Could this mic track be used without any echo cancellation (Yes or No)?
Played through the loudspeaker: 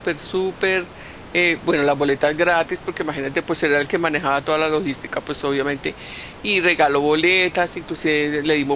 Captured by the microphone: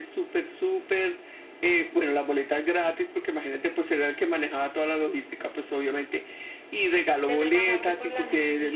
No